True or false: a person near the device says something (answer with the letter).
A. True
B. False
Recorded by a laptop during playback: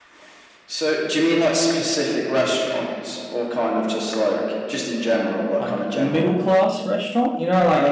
A